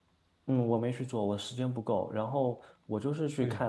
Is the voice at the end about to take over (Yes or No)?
No